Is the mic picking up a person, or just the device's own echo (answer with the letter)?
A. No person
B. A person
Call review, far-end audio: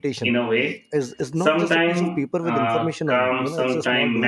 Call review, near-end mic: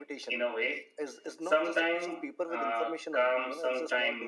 A